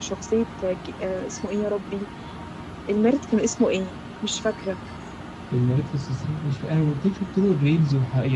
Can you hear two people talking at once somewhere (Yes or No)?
No